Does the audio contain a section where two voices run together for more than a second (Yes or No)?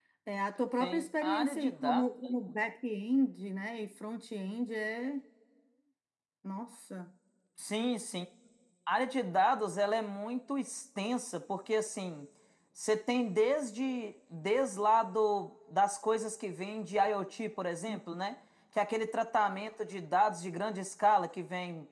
Yes